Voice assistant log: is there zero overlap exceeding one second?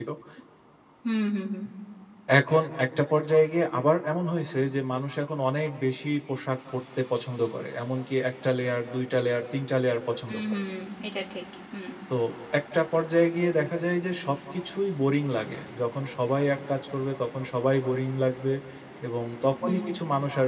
Yes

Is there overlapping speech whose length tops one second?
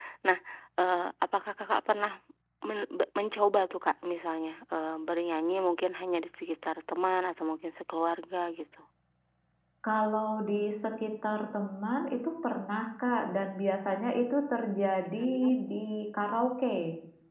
No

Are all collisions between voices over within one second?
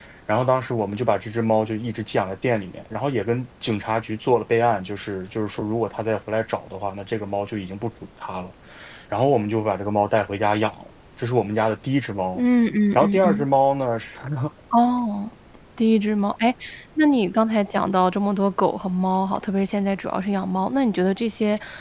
Yes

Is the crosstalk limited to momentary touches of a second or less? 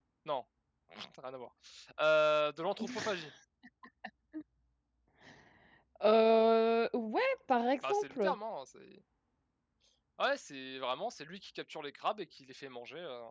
Yes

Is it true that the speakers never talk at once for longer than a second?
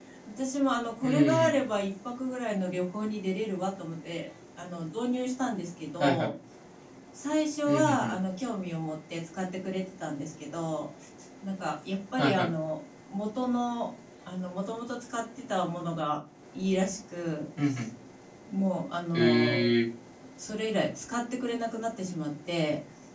Yes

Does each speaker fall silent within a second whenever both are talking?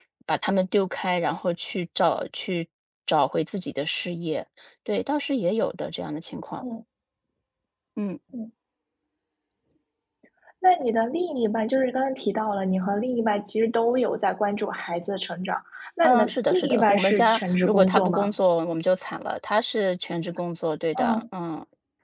No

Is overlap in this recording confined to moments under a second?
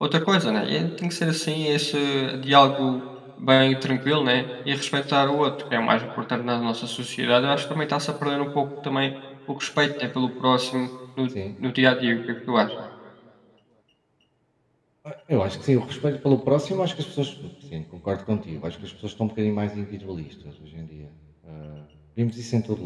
Yes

